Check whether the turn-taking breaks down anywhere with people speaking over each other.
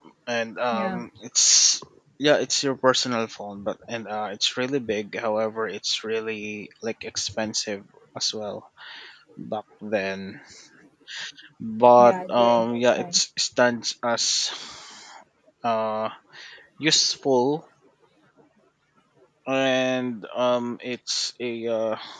Yes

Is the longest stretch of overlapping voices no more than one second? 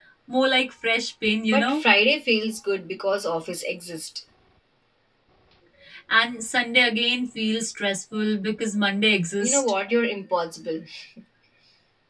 Yes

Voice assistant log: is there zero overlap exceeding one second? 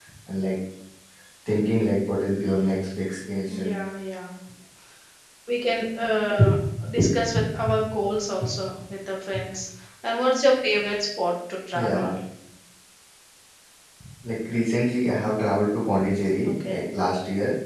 Yes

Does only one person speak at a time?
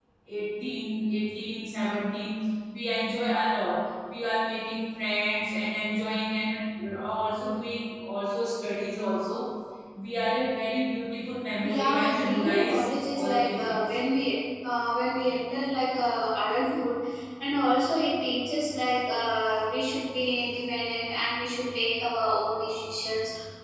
No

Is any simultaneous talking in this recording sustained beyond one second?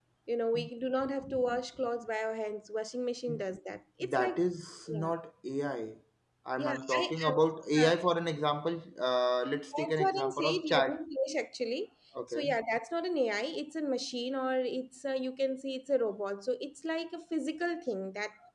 Yes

